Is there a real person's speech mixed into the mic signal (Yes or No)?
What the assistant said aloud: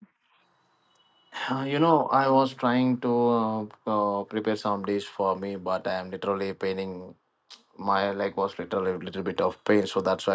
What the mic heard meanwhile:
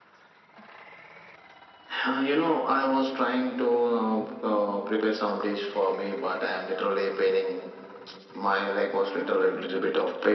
Yes